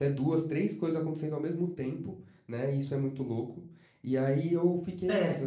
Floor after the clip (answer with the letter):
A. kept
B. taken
A